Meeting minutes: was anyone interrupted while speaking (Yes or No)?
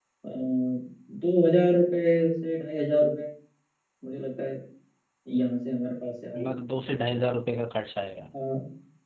No